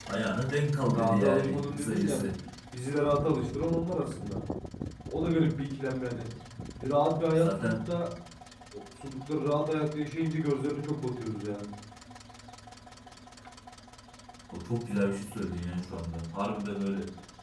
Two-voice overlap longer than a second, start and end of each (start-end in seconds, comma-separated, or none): 0.9-2.2